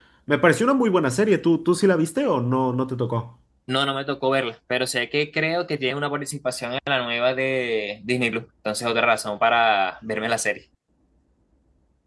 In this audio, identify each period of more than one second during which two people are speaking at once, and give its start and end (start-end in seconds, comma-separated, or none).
none